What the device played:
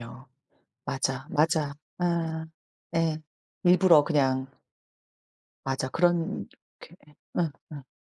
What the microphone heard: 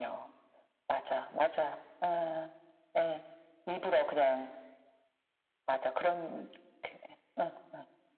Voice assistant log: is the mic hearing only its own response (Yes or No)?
Yes